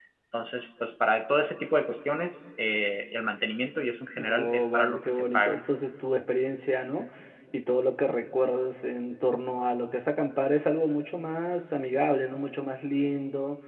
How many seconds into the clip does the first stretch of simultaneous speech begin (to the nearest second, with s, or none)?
4 s